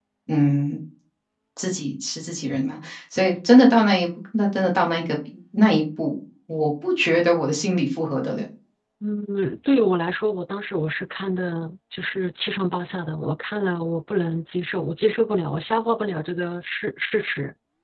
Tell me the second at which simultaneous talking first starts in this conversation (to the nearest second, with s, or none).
none